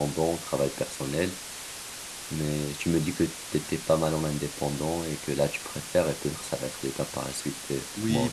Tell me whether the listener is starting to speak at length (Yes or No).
Yes